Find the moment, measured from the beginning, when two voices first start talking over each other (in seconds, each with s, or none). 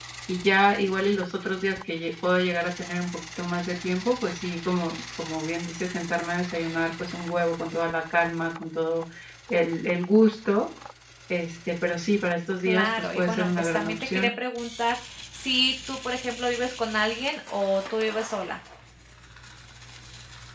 12.6 s